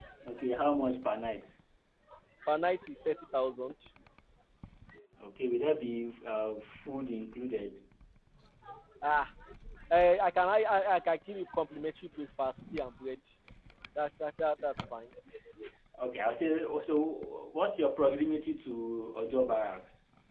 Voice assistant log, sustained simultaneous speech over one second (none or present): none